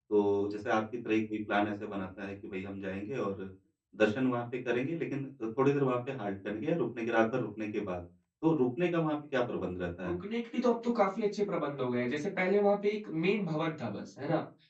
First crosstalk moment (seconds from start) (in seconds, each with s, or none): none